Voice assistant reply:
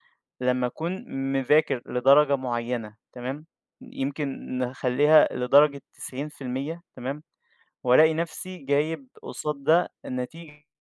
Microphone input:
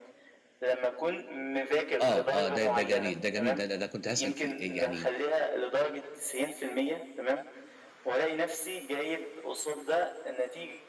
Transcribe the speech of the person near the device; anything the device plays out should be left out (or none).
آه، آه، ده ده جميل، ده جميل، ده ده كنت هاسأل فيه، آآ يعني